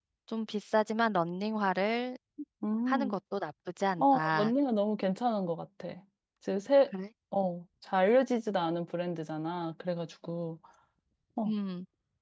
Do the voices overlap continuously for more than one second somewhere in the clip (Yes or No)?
No